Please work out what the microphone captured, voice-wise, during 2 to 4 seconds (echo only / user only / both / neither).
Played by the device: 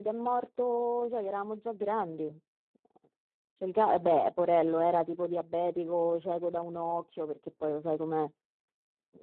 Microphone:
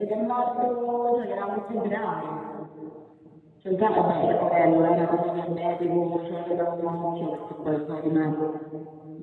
echo only